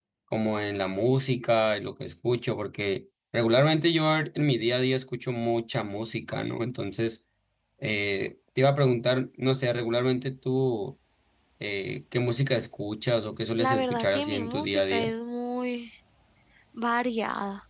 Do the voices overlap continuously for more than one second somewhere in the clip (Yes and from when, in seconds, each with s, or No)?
Yes, from 13.6 s